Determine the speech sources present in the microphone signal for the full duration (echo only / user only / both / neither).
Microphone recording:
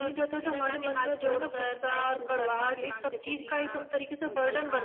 echo only